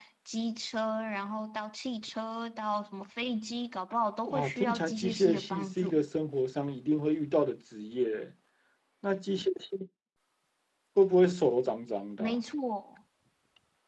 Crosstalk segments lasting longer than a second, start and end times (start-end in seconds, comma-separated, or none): 4.3-6.0